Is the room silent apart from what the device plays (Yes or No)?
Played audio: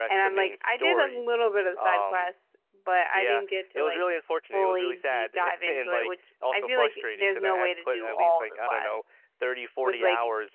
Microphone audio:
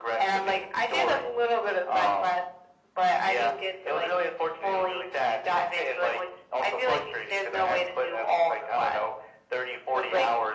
Yes